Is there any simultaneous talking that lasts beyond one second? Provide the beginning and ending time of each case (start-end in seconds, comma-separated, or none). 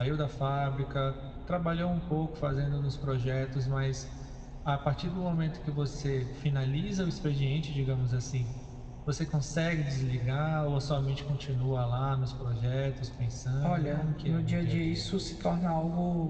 13.6-15.1